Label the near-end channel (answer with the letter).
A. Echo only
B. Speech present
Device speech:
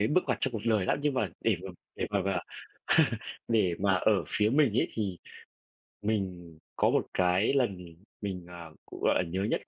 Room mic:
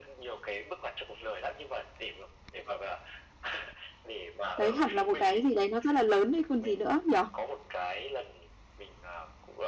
B